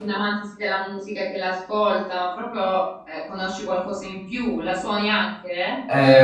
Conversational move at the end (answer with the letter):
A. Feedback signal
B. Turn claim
B